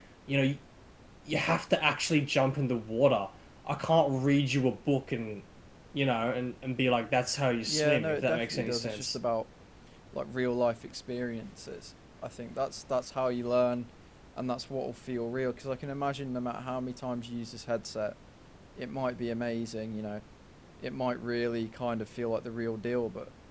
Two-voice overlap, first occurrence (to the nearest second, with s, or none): 8 s